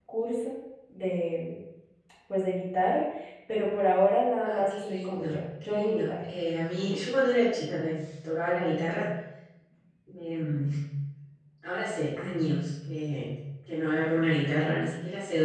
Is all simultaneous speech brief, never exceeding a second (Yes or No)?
No